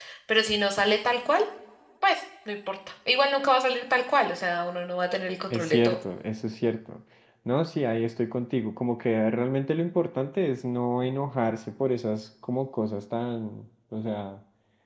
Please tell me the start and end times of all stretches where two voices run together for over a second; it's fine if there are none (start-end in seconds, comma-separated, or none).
none